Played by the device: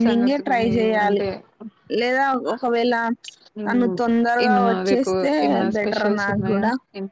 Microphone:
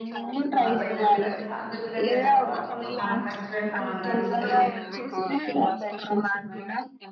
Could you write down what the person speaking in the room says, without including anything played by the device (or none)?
వాళ్ళకి చెప్పినట్ వాళ్ళు చెప్పినట్టే నడువాల మనం మనకు నచ్చినట్టు మనం నడిస్తే